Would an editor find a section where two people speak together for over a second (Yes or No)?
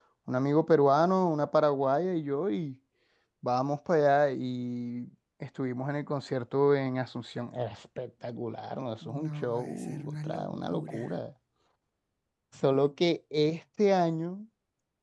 Yes